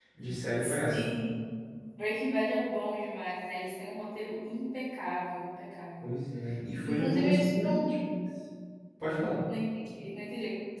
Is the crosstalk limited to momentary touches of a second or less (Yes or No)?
No